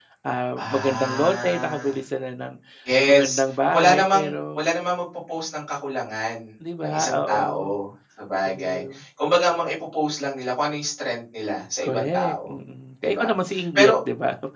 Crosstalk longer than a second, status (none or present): present